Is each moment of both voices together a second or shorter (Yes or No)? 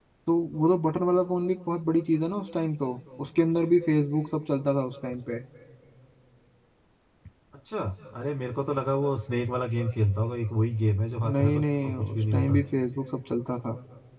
No